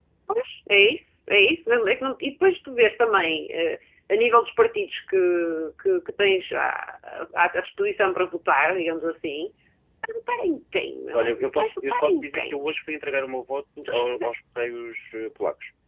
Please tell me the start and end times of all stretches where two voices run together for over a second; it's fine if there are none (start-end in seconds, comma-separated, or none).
11.1-12.7